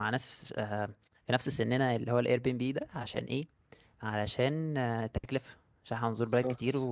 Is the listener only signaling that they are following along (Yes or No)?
Yes